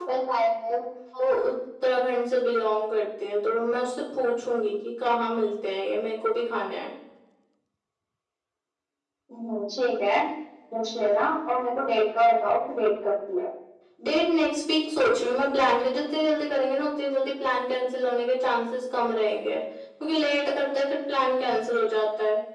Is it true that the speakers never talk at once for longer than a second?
Yes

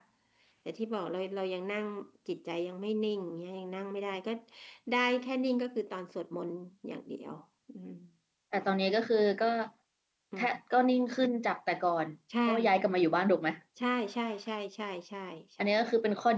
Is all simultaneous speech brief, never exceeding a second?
Yes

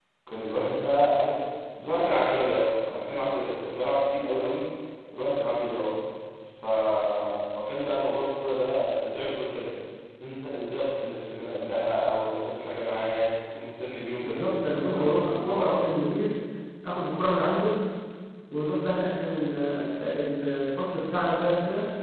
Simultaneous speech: Yes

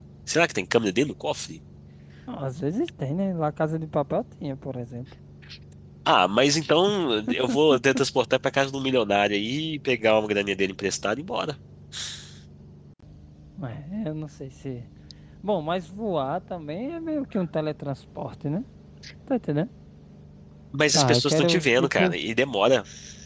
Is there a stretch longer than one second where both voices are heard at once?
Yes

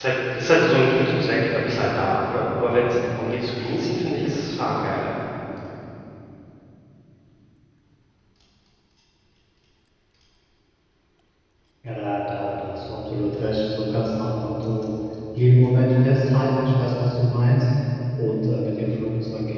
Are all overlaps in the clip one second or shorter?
Yes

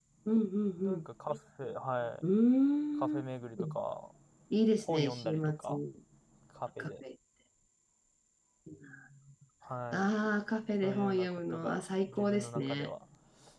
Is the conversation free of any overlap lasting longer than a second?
No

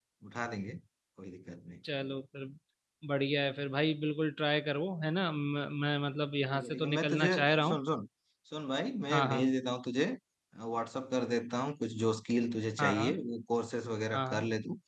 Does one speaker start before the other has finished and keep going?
Yes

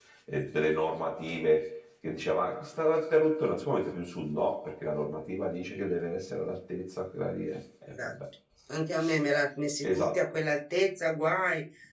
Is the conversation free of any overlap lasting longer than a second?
Yes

